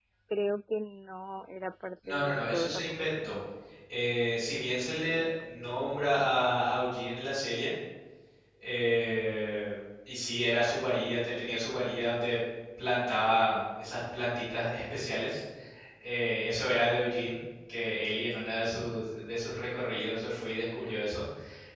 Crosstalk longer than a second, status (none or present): present